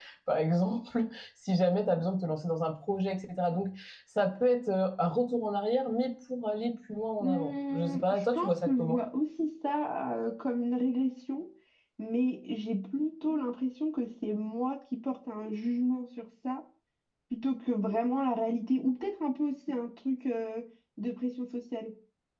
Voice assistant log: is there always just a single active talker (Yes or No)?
No